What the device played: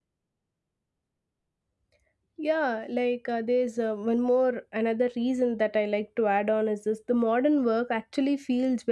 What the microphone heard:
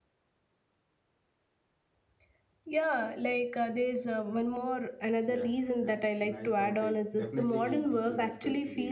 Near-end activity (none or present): present